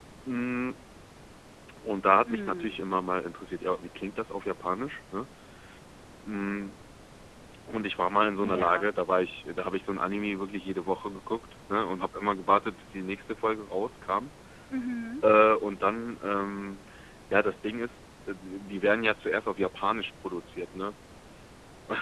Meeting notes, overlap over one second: none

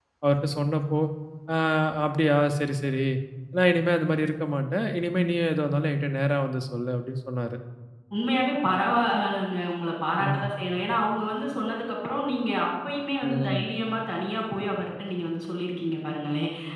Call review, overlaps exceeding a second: none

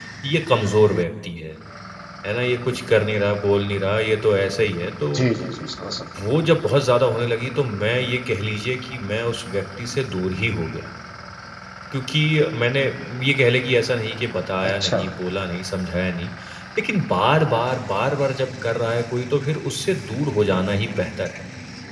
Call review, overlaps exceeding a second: none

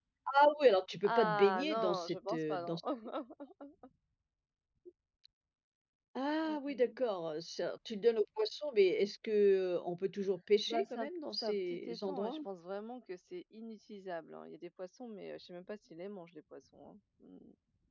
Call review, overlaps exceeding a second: present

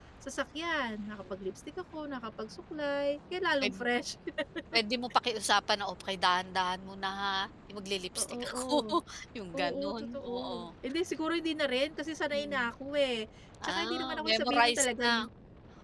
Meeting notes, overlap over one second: present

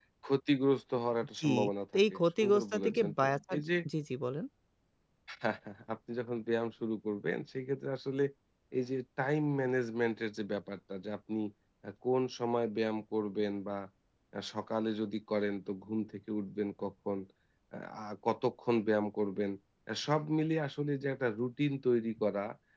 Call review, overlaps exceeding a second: present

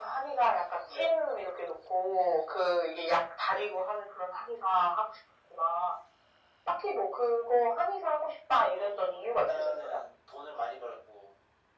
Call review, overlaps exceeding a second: present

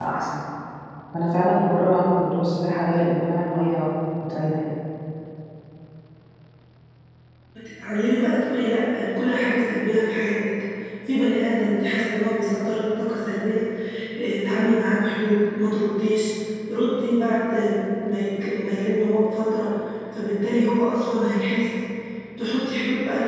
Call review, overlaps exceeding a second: none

